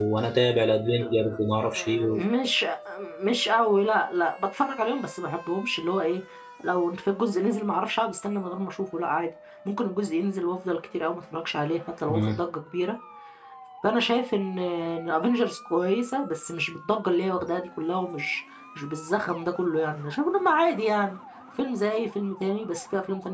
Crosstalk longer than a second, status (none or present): none